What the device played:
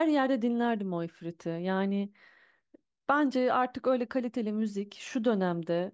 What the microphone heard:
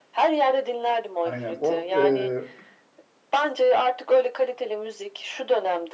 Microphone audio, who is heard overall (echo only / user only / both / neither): both